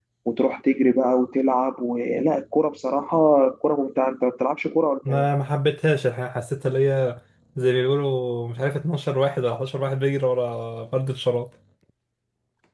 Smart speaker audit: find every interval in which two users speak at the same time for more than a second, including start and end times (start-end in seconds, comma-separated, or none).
none